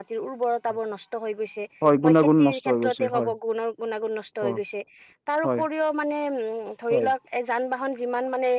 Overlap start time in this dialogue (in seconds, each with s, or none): 2.0 s